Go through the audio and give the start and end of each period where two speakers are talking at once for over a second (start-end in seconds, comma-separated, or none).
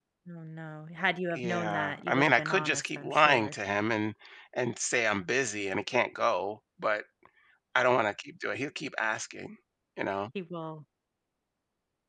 1.3-3.5